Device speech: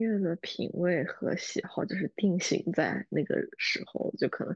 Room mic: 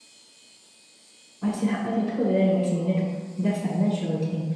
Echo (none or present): none